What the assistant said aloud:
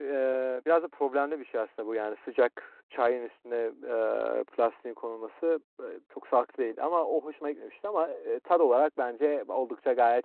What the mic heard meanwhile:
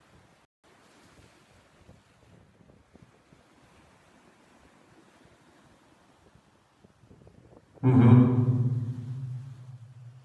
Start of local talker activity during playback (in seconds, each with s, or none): 7.8 s